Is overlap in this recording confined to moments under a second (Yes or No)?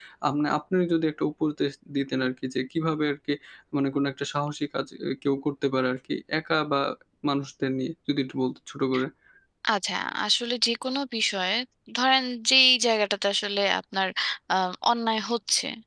Yes